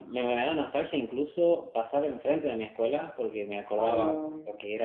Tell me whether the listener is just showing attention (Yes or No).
Yes